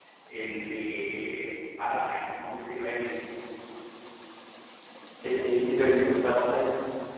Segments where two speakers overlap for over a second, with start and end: none

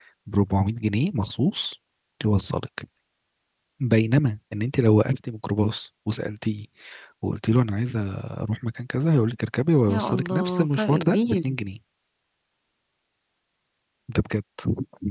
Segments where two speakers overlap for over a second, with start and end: 9.9-11.4

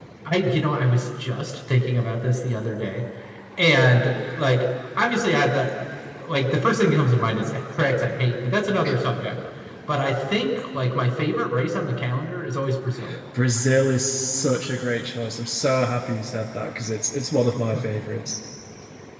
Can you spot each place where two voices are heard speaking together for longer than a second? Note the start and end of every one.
none

